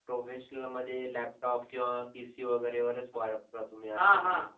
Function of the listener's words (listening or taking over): taking over